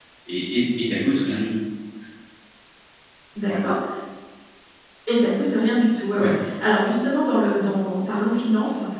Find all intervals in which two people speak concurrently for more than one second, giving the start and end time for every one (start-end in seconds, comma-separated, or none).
none